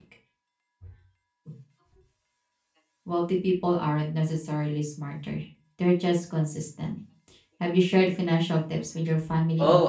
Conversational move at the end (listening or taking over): taking over